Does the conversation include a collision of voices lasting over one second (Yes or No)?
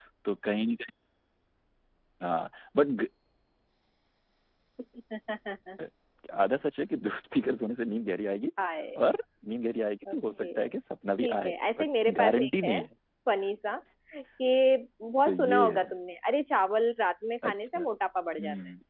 Yes